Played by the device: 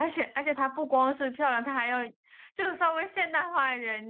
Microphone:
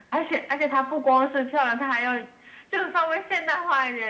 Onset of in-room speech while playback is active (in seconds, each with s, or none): none